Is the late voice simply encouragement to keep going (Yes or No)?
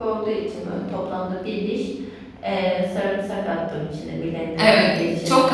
No